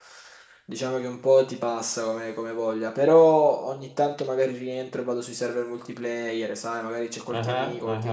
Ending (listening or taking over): listening